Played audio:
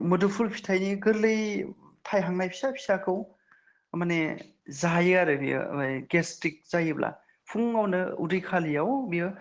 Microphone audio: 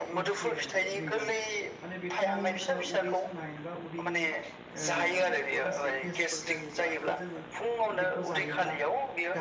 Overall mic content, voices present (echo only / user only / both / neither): both